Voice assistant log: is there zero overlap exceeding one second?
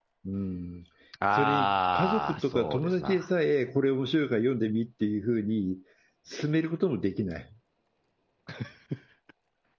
No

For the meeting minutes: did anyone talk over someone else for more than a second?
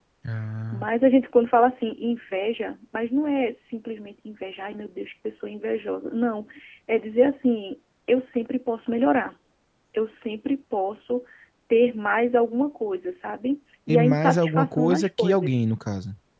Yes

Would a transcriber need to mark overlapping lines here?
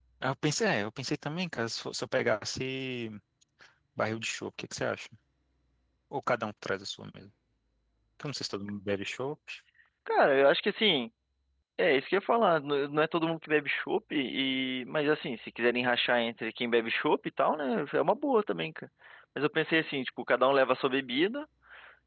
No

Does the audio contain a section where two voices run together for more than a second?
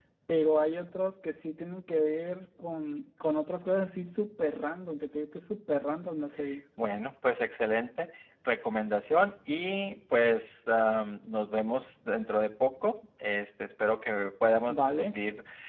No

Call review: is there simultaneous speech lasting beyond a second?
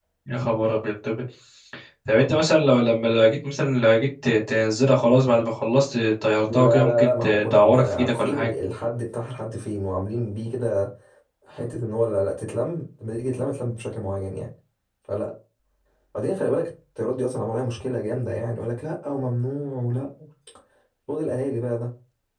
Yes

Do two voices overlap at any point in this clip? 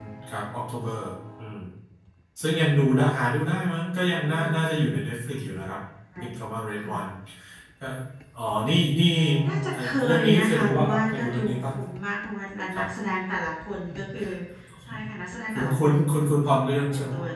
Yes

